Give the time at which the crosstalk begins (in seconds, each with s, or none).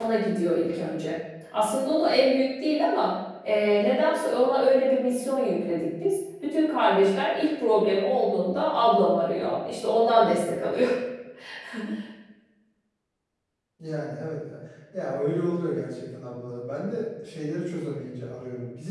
none